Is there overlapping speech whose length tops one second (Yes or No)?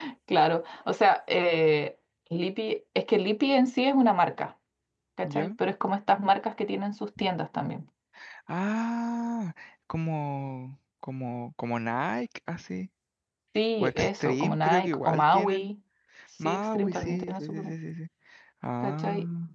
Yes